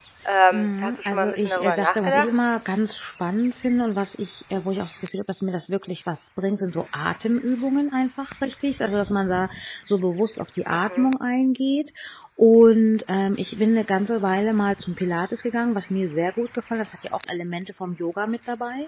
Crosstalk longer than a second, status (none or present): present